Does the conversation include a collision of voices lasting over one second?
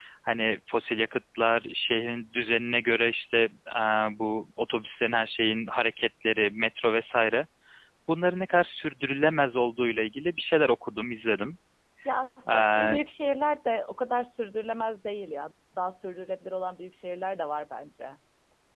No

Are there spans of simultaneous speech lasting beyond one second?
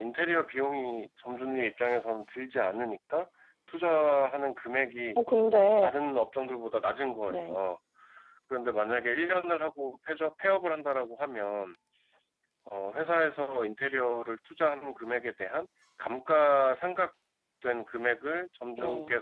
No

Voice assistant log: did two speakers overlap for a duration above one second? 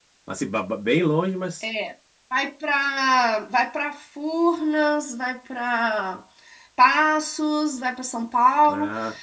No

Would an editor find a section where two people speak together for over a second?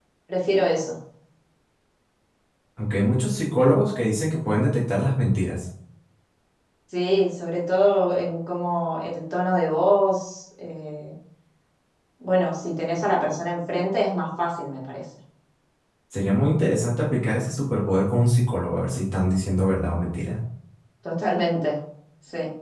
No

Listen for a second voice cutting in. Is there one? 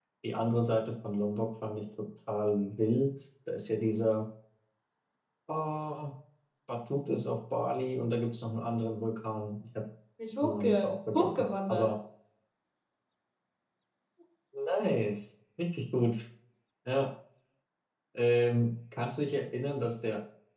Yes, from 10.4 s

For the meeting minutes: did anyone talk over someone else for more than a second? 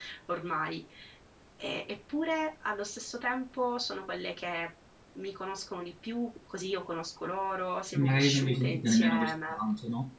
Yes, from 7.9 s

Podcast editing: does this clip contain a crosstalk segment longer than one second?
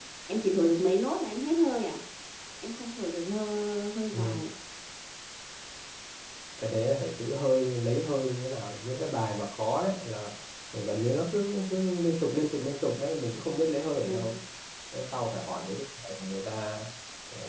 No

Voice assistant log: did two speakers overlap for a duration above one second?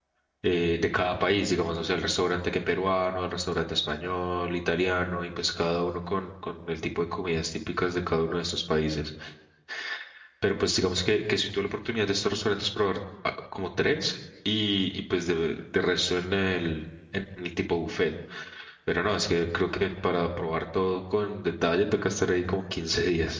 No

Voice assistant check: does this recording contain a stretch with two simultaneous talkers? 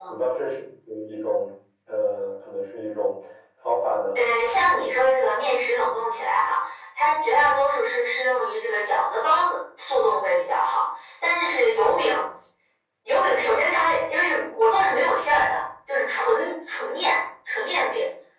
No

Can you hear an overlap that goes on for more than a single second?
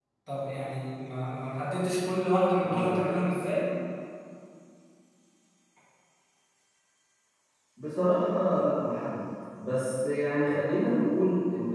No

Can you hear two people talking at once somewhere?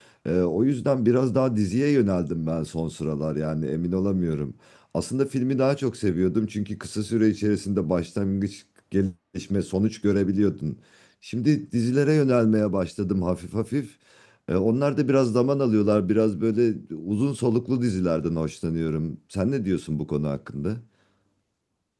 No

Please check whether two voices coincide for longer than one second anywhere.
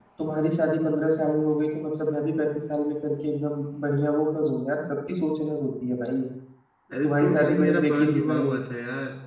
Yes, from 7.0 s

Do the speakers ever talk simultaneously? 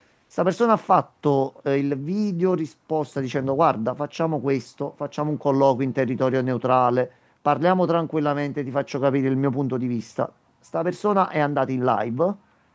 No

